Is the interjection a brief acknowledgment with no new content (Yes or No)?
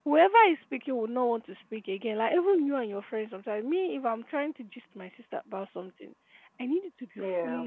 Yes